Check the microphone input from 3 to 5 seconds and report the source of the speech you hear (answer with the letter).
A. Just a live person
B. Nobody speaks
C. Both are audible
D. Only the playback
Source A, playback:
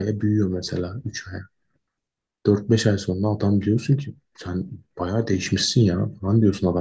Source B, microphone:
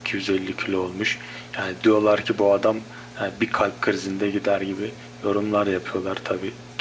A